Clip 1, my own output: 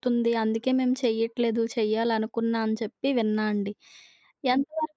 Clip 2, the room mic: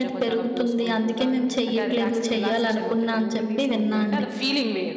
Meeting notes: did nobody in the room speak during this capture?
No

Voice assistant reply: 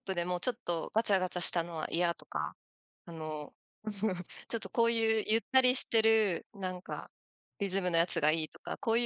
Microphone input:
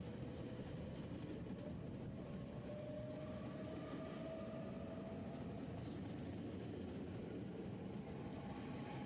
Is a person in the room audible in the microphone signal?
No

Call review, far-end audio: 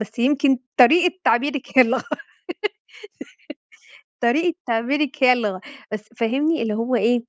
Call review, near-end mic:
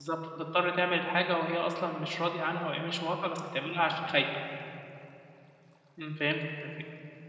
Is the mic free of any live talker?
No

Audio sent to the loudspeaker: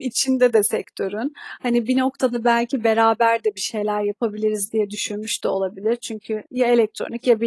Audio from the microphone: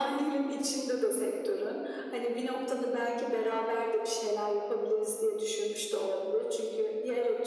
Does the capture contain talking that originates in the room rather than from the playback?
No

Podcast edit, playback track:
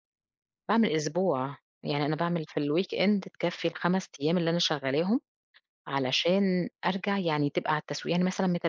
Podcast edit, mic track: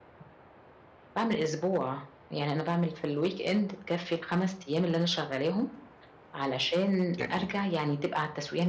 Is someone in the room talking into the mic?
Yes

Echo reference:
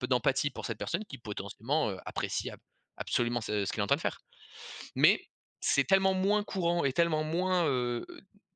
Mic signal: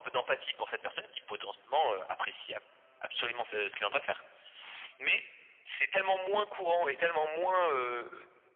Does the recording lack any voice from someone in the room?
Yes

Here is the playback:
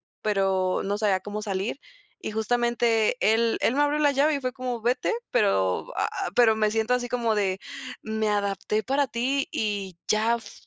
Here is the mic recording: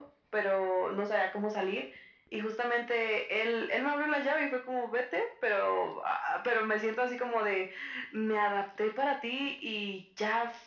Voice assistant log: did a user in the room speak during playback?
No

